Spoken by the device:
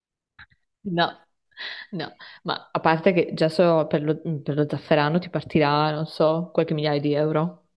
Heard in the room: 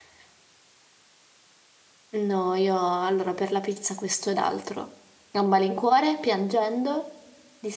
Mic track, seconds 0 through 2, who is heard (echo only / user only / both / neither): neither